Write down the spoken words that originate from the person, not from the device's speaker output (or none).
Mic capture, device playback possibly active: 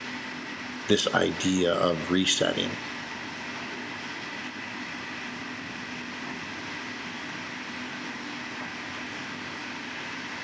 this idea of resetting